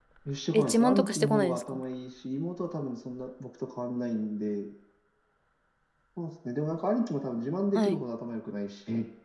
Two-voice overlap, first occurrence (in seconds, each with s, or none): 0.5 s